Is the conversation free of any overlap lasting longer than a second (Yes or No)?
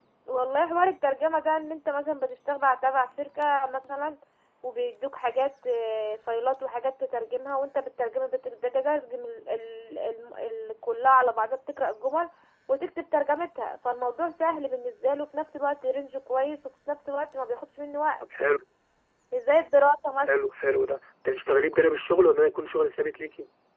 Yes